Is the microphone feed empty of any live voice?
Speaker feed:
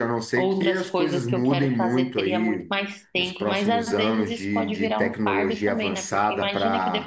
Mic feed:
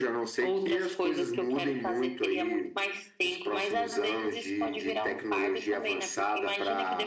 Yes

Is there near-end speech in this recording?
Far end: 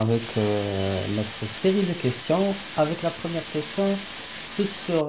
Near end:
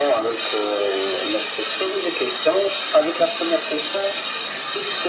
No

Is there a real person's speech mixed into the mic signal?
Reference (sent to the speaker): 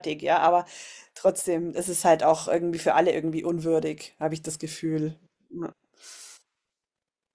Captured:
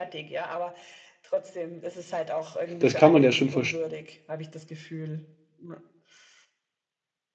Yes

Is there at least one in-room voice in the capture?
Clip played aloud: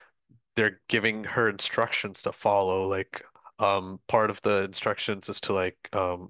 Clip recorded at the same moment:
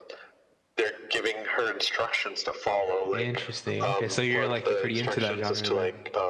Yes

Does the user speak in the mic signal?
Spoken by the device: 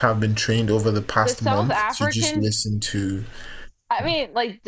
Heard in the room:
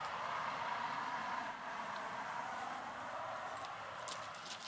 No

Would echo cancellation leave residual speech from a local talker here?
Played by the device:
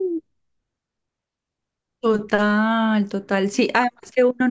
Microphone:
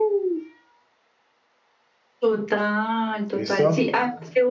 Yes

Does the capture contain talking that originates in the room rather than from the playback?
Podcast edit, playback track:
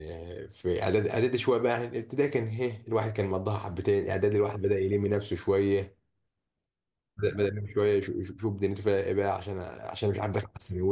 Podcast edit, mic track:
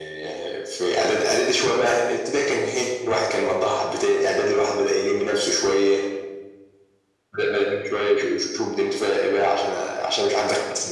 No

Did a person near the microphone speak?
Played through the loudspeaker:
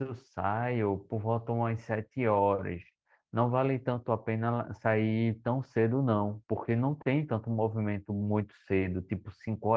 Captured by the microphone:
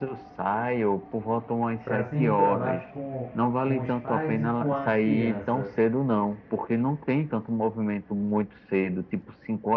Yes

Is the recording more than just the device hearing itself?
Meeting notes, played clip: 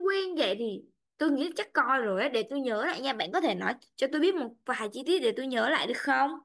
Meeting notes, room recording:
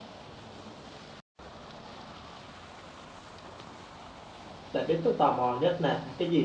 Yes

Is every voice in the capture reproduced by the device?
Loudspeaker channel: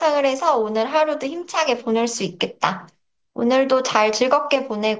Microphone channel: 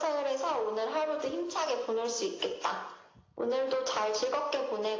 Yes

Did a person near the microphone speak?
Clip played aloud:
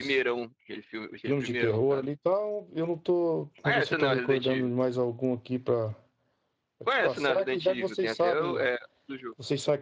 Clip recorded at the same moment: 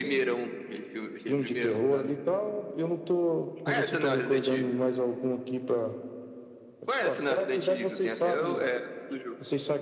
No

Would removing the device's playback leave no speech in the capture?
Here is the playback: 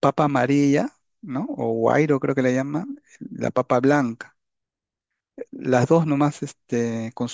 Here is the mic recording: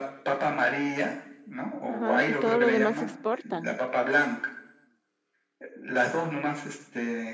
No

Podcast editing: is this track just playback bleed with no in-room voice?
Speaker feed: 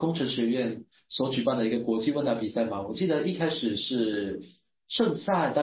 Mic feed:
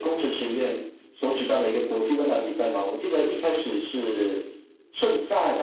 Yes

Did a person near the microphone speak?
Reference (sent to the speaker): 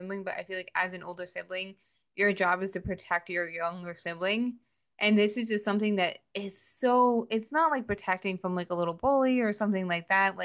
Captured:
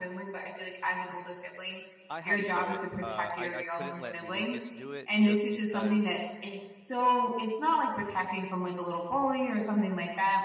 Yes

